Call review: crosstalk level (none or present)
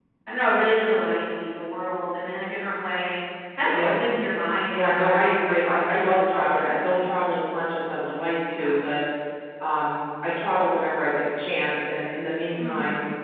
present